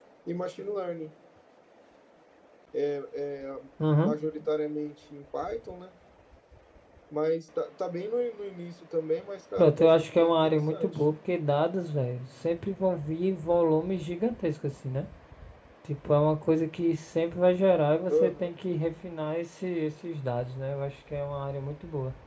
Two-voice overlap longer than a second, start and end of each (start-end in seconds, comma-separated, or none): 9.6-11.0